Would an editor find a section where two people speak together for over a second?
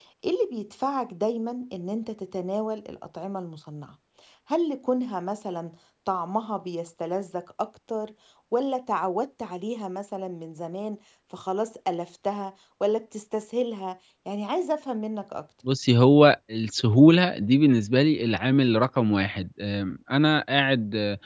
No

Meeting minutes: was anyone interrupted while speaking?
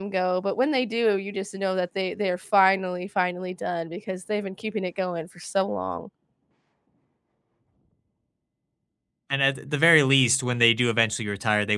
No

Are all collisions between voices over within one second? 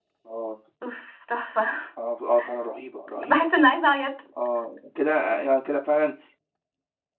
Yes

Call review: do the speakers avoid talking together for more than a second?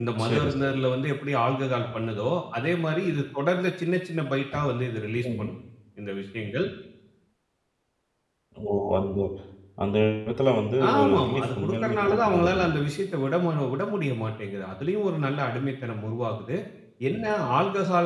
No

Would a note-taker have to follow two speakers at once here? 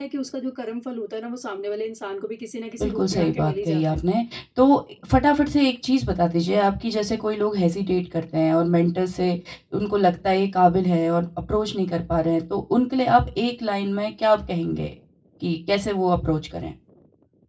Yes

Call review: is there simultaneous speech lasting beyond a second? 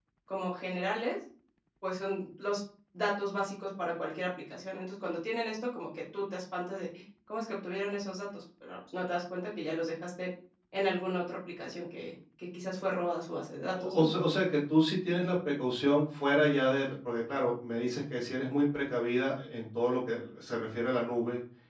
No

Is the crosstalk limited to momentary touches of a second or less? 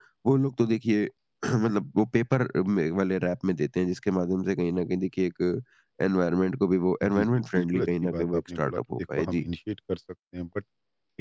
No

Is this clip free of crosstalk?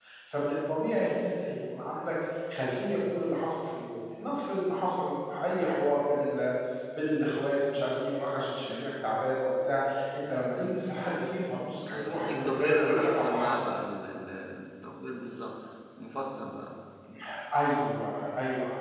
No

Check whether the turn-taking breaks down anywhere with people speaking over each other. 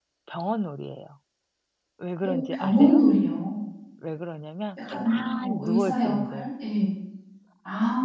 Yes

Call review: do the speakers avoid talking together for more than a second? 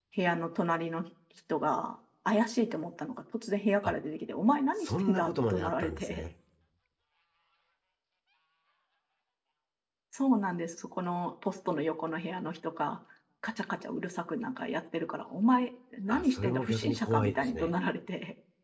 No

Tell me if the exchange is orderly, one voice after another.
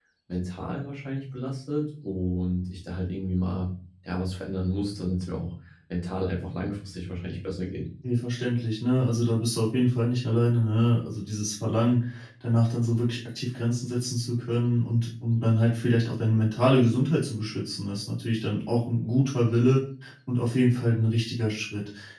Yes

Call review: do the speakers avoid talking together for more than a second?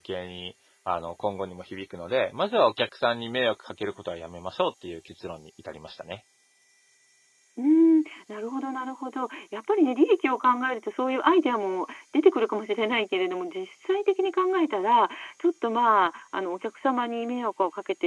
Yes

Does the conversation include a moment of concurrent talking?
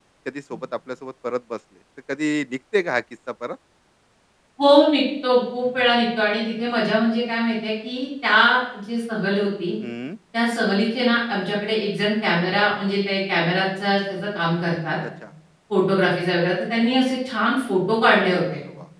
No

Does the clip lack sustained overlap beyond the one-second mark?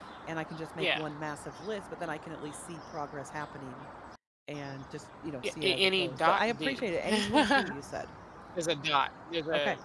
No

